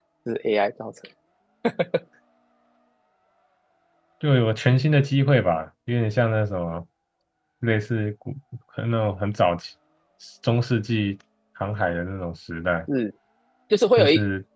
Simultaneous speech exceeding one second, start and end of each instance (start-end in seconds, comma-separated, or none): none